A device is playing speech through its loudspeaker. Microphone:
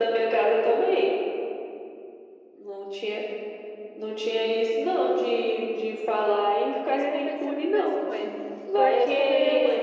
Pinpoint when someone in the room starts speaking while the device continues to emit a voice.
6.8 s

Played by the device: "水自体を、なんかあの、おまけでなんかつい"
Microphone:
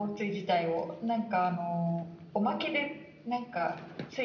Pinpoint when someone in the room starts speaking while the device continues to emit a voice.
none

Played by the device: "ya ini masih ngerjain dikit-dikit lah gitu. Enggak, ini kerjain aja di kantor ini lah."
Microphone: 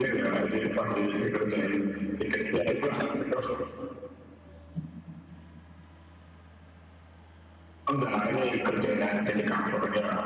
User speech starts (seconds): 2.5 s

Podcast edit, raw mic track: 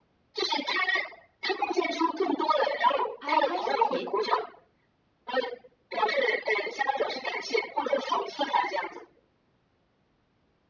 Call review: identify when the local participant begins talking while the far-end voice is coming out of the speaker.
3.2 s

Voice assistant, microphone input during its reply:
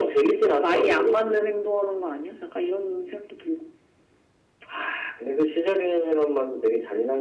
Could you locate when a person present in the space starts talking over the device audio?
none

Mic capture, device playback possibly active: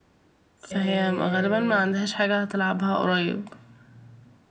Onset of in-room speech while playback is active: 0.7 s

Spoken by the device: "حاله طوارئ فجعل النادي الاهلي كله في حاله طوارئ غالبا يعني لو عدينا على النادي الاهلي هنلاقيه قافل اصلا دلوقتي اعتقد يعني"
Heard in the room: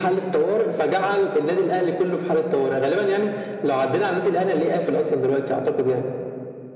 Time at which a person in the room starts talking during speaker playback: none

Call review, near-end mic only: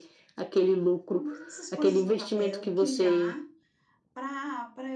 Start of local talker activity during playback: 1.1 s

